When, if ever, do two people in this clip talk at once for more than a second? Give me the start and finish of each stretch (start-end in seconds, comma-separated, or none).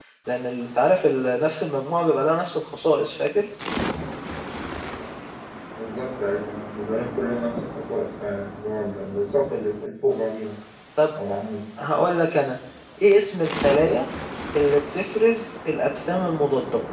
none